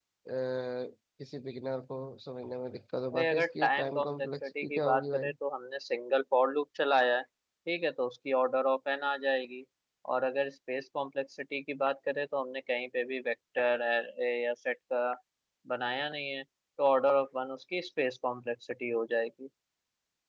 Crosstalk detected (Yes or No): Yes